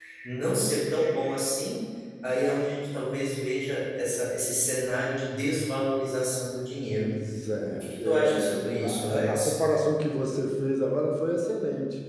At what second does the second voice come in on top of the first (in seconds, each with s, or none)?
7.6 s